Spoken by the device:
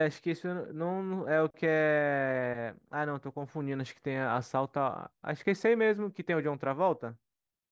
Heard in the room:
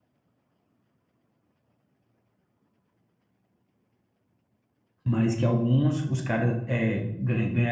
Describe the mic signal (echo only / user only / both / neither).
user only